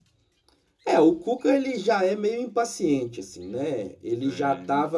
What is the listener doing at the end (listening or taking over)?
listening